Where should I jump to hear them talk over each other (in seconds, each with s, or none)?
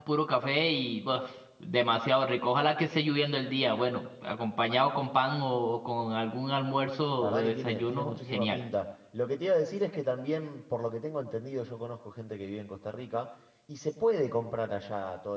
7.2 s